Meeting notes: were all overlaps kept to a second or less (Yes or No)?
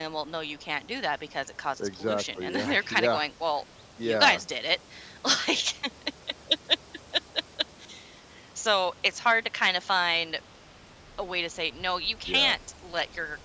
No